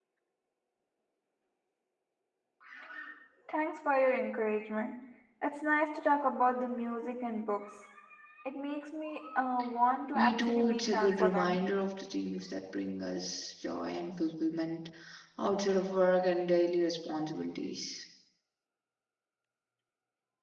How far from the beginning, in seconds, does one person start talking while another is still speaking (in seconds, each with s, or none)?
10.1 s